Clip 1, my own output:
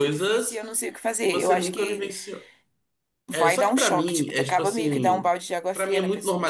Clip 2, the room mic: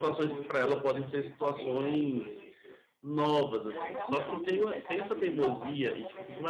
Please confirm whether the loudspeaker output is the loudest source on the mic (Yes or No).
No